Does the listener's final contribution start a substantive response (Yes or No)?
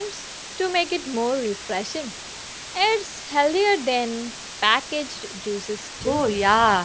Yes